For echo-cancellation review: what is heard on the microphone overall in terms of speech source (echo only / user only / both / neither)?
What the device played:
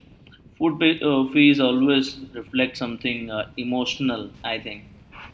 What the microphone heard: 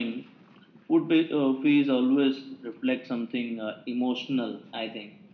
echo only